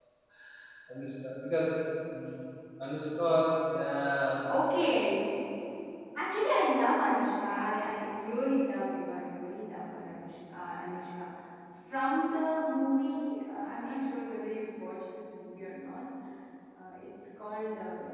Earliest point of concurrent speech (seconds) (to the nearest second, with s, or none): none